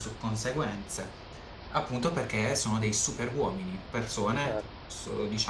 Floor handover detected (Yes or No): No